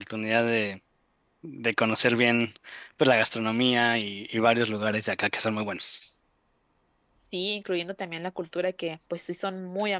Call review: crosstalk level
none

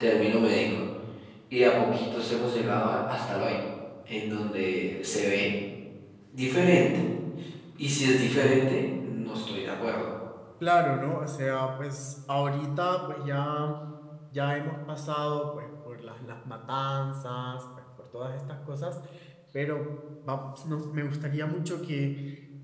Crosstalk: none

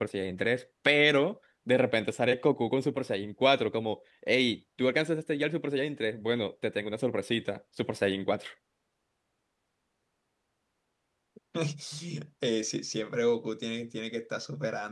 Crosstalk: none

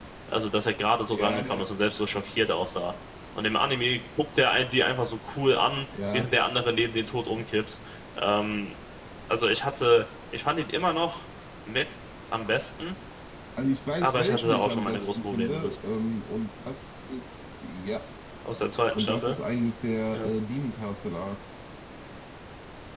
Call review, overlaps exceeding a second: present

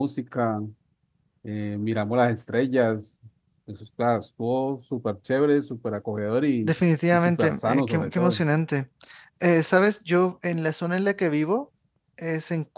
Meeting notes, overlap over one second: present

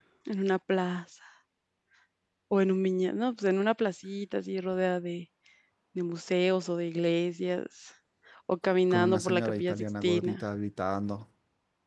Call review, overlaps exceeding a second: present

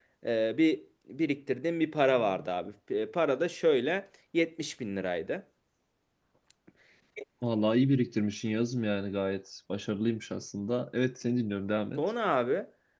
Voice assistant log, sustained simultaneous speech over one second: none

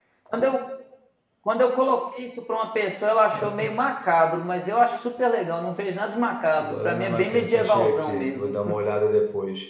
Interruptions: present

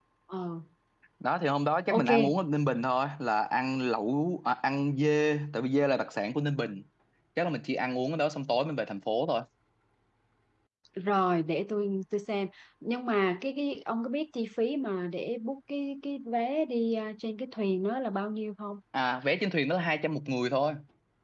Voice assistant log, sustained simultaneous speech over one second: none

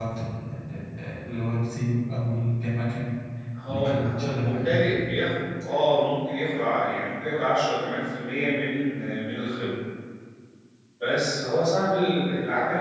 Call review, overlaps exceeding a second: present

